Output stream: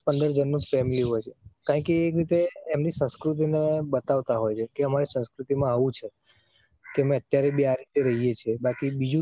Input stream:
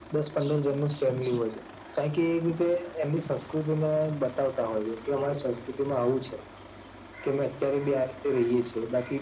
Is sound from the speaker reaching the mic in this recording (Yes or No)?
Yes